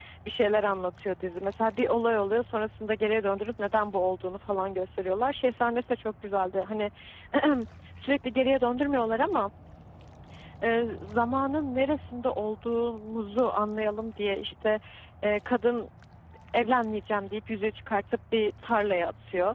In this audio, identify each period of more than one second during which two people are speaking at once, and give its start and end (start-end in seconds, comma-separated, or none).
none